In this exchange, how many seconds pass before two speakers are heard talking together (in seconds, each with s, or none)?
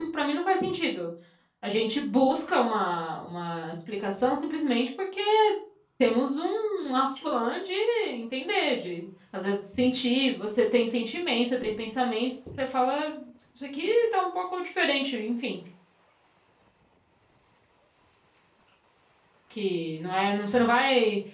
none